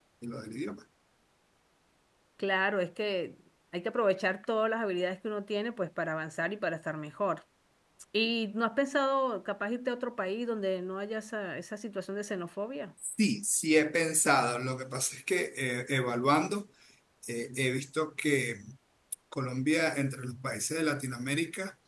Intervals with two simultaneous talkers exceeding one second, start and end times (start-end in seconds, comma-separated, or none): none